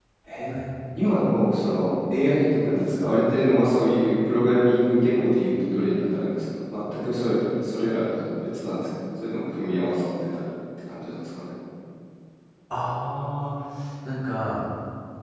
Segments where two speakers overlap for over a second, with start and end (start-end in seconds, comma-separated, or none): none